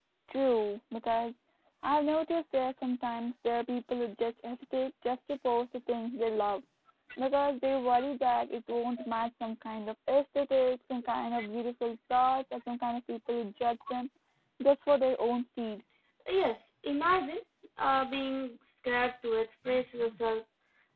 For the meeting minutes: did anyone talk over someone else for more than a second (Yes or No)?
No